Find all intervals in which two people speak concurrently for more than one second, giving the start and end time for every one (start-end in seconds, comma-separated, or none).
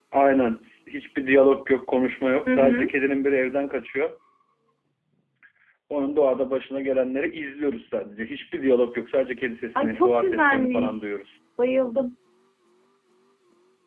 9.8-11.1